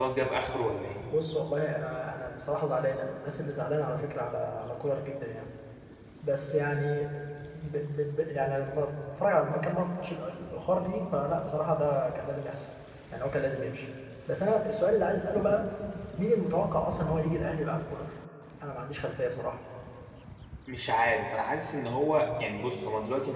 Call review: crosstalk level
none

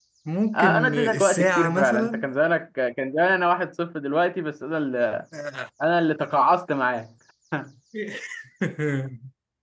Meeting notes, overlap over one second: present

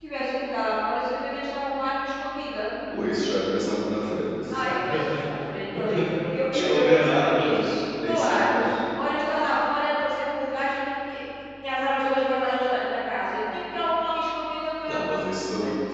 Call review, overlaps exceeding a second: present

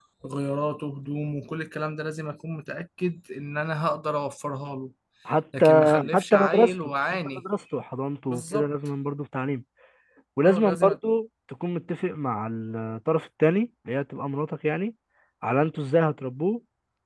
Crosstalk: present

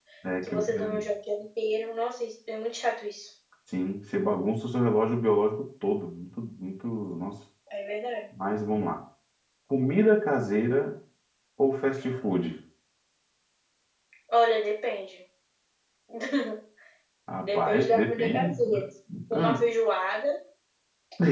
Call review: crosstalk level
present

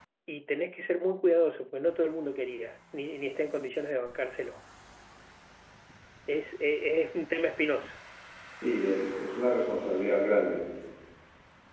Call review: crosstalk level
none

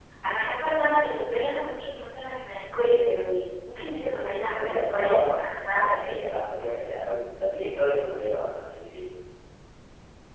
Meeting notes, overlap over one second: present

